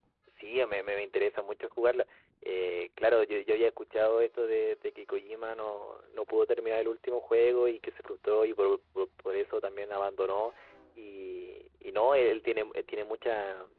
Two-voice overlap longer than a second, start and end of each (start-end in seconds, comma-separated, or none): none